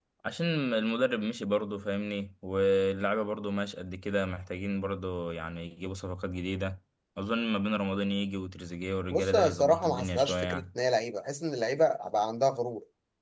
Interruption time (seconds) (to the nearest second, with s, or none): 9 s